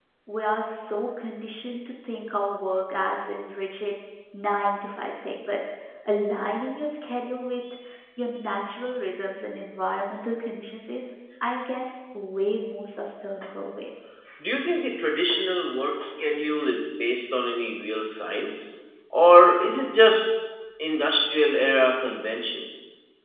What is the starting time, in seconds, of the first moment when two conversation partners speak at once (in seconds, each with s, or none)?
none